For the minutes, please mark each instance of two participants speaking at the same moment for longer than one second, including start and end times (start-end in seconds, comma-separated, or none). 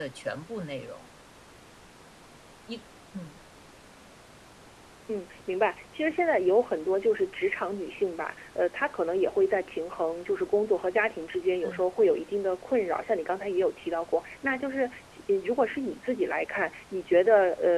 none